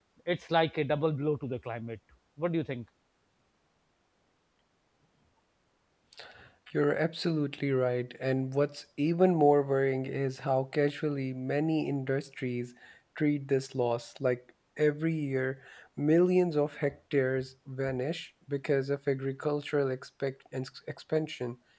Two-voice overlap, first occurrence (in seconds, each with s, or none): none